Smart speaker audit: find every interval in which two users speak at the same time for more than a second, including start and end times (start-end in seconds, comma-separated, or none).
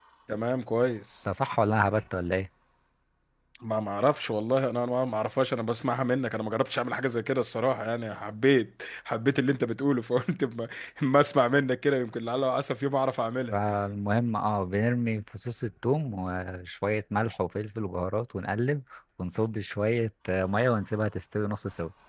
none